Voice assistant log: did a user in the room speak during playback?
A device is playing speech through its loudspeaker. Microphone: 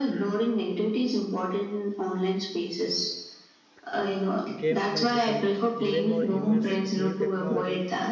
Yes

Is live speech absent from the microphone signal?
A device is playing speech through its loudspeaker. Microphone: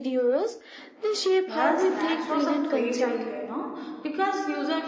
No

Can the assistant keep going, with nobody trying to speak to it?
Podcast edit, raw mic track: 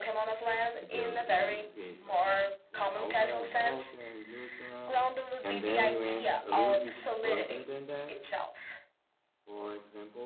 No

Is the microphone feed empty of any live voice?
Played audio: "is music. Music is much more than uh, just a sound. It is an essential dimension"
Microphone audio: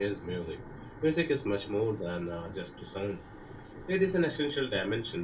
Yes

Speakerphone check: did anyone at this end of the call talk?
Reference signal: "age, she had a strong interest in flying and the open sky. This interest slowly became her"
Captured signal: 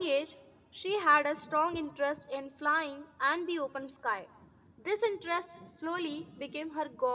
No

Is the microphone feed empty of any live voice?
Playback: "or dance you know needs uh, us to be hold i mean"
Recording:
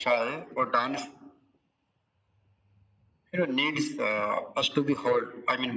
Yes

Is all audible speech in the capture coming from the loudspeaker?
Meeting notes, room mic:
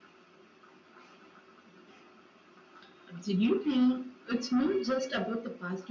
Yes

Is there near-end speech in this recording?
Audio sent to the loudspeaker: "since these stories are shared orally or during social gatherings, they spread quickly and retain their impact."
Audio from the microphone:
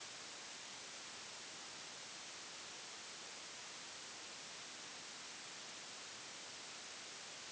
No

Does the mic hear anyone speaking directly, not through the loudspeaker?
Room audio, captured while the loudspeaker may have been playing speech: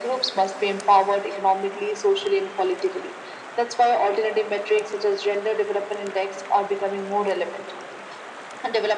No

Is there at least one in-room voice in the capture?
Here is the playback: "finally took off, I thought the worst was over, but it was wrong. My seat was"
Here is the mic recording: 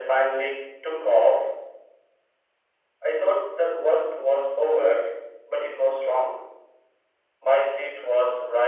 No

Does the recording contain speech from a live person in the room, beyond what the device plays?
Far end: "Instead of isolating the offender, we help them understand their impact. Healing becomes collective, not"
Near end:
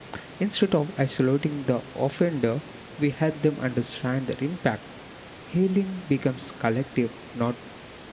No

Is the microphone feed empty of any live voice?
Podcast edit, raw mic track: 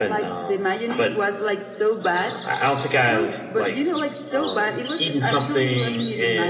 Yes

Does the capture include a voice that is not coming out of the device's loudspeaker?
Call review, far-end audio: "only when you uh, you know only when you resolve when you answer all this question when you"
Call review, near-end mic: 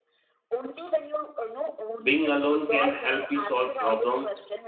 Yes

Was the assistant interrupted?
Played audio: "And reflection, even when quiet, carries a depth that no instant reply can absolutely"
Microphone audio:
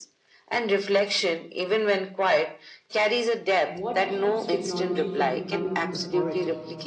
Yes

